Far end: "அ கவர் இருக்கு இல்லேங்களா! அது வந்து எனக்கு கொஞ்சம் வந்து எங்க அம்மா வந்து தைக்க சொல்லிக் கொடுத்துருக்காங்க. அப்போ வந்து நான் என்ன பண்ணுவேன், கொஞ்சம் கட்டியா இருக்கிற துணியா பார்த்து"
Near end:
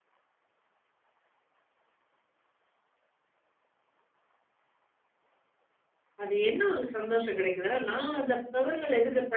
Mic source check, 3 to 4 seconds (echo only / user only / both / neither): neither